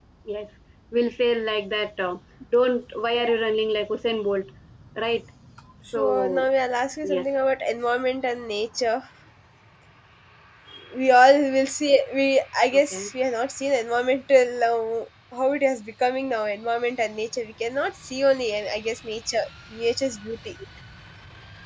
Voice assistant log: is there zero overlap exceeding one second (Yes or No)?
Yes